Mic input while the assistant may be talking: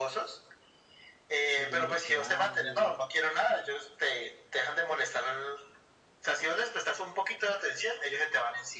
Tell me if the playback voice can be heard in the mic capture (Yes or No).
Yes